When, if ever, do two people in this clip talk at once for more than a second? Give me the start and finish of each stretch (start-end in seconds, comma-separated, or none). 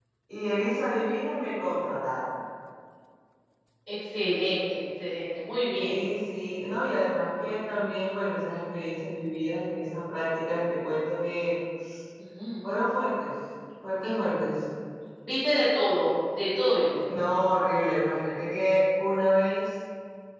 none